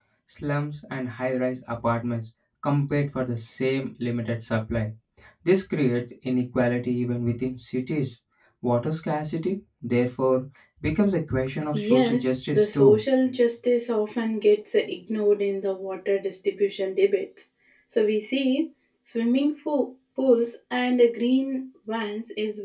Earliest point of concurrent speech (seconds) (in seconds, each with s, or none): 11.7 s